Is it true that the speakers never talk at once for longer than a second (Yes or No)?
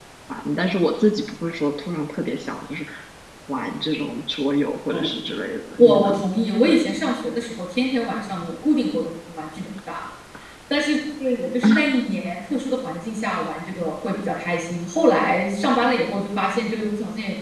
Yes